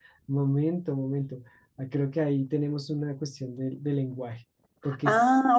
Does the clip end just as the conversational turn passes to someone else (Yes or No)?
Yes